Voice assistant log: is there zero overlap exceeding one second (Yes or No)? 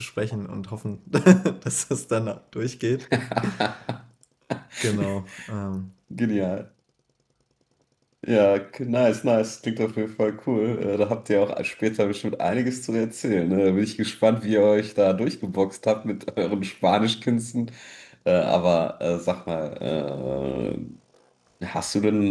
Yes